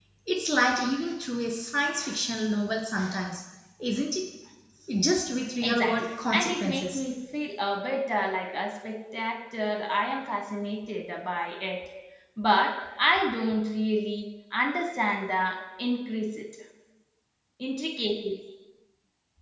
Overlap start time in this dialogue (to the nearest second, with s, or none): 6 s